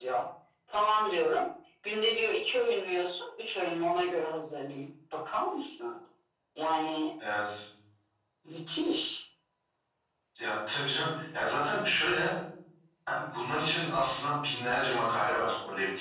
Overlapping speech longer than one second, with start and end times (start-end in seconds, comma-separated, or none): none